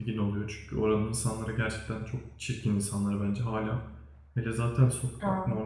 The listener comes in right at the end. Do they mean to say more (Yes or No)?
No